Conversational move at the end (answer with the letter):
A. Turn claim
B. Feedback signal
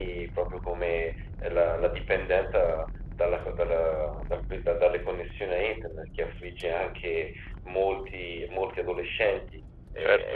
A